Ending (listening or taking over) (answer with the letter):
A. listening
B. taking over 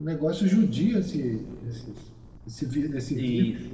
B